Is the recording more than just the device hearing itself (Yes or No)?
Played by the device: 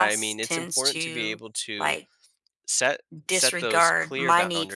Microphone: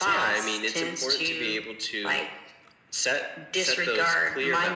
No